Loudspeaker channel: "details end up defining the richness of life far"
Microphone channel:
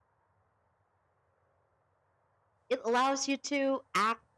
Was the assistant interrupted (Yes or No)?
Yes